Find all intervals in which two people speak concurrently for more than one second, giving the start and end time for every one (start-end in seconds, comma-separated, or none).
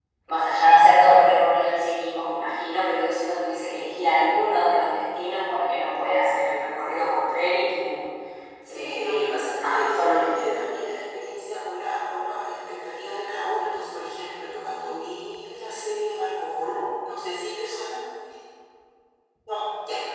8.7-10.5